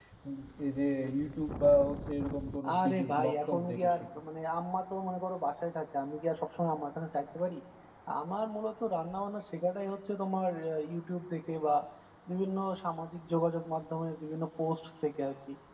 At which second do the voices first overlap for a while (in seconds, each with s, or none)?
2.6 s